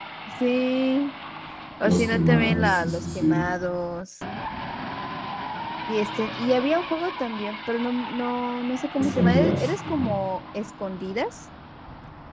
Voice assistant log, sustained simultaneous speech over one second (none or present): present